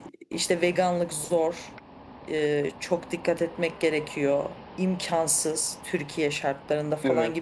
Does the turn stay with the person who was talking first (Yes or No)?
Yes